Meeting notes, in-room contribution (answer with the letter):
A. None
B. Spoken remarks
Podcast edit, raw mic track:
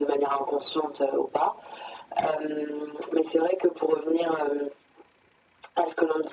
A